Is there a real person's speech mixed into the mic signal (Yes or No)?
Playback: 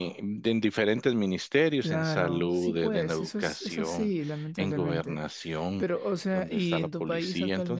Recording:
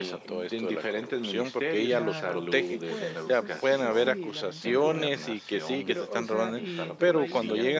Yes